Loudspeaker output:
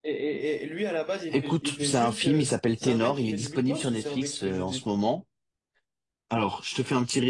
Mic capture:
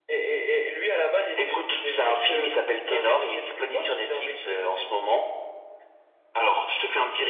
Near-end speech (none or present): none